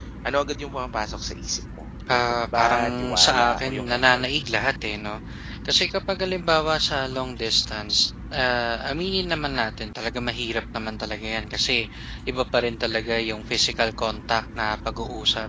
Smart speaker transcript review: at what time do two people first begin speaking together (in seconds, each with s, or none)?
2.1 s